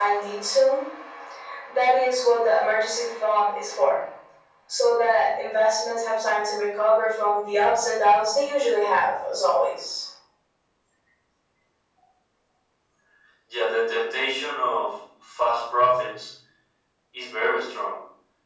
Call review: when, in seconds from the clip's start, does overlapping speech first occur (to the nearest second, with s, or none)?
none